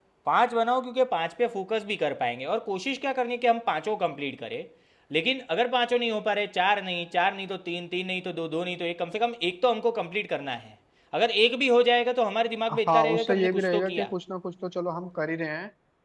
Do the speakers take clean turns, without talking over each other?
No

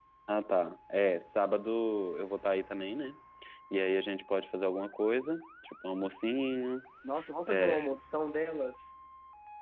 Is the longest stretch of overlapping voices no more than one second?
Yes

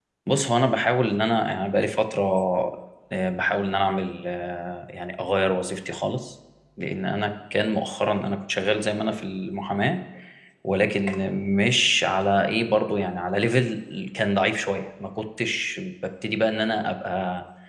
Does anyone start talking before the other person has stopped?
No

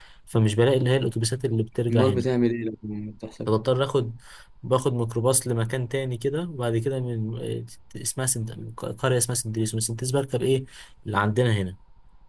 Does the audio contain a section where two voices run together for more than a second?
No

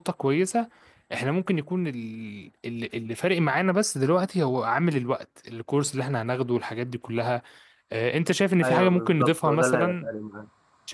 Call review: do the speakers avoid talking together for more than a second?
No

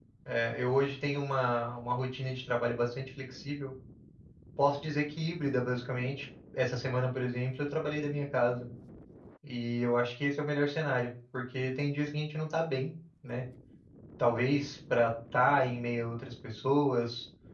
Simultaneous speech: No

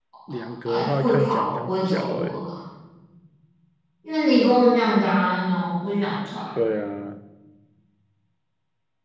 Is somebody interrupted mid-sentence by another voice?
Yes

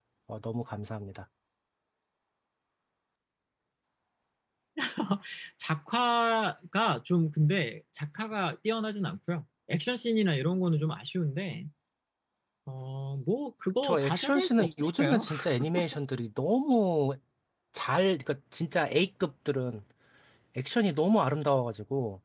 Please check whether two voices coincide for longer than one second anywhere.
Yes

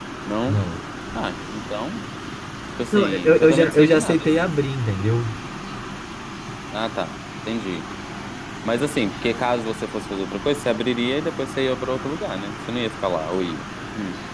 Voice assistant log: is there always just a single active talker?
No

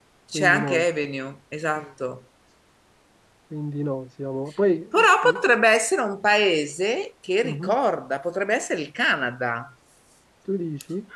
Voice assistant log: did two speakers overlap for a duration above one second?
No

